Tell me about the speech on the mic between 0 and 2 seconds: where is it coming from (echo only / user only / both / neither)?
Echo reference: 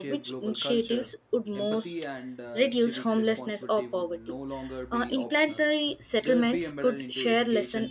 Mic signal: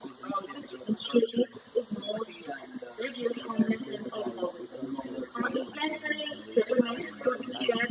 echo only